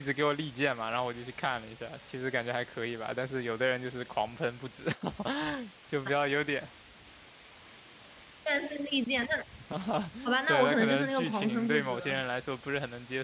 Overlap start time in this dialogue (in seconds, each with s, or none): 10.5 s